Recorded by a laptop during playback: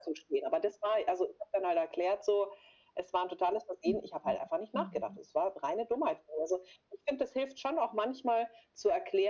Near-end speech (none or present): present